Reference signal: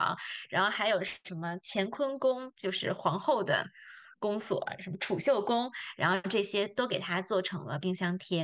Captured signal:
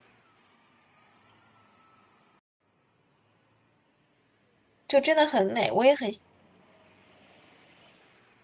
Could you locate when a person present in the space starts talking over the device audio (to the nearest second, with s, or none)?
5 s